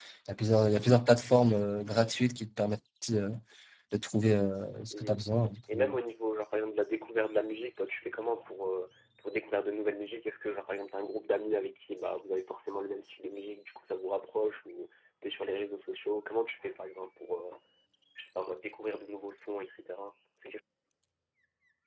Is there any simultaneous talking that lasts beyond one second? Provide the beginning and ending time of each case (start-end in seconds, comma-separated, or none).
none